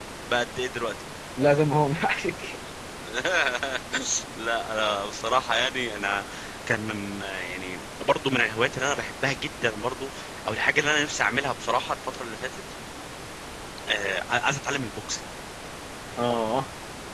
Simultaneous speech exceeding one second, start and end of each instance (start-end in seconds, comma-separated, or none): none